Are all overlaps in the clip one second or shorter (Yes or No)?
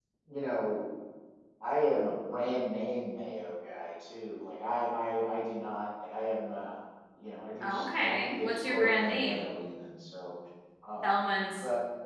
No